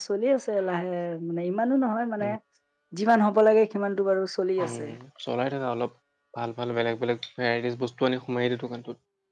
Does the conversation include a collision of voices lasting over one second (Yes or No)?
No